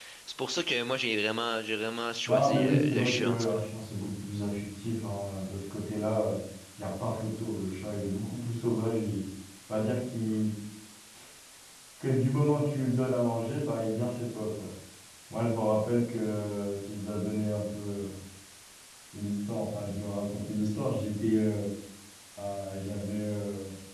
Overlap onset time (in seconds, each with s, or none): 2.3 s